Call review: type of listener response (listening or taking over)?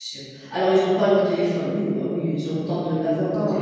taking over